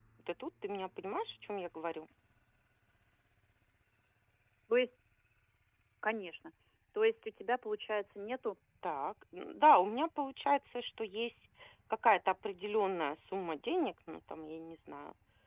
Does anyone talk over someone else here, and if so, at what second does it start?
none

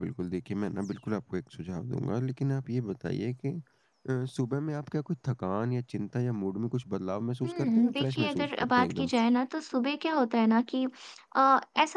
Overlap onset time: 7 s

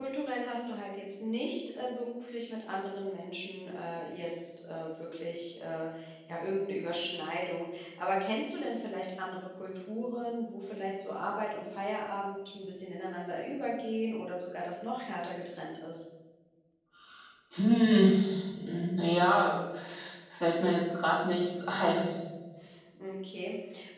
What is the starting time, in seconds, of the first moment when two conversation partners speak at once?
none

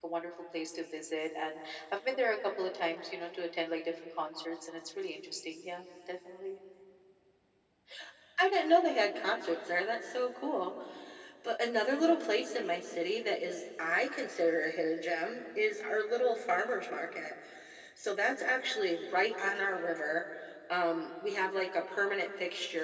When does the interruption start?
none

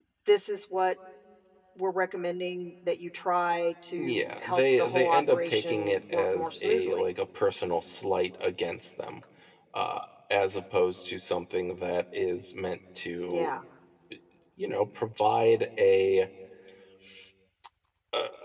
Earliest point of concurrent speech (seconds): 4 s

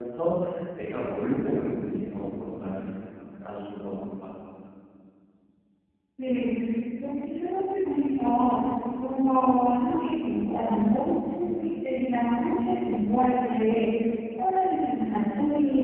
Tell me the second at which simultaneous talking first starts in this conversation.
none

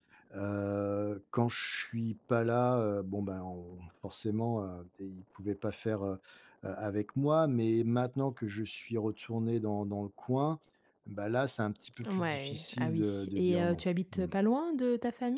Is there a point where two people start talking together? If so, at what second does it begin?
12 s

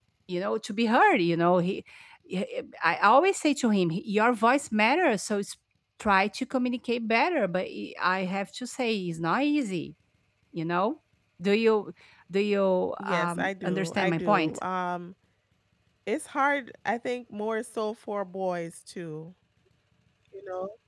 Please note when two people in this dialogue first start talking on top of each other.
13 s

